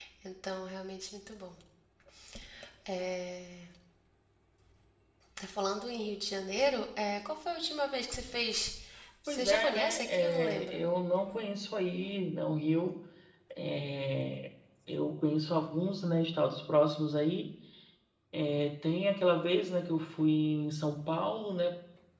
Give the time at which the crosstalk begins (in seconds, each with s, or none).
9.3 s